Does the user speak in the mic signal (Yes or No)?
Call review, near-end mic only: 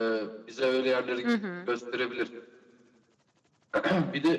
Yes